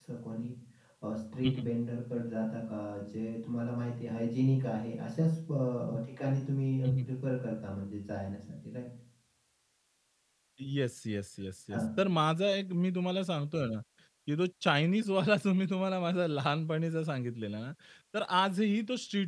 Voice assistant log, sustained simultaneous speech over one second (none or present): none